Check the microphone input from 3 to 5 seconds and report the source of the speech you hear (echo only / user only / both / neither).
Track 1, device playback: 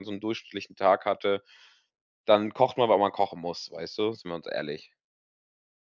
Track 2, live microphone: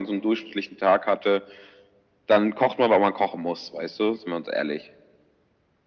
echo only